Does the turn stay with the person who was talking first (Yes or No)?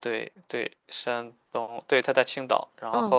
Yes